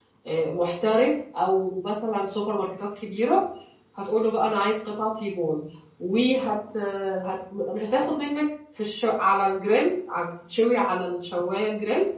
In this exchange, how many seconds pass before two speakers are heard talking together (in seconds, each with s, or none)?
none